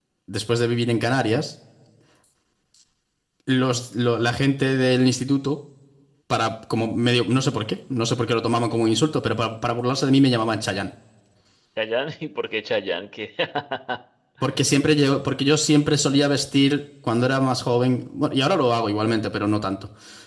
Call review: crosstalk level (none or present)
none